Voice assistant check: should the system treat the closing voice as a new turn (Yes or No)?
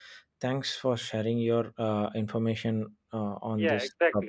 Yes